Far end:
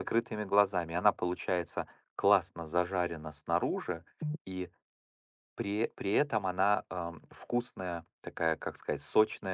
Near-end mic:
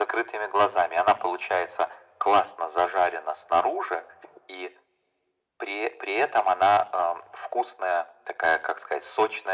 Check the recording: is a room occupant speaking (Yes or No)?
No